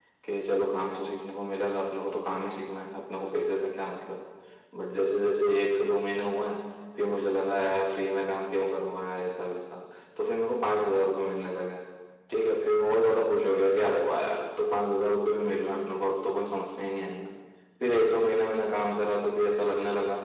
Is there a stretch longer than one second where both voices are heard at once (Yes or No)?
No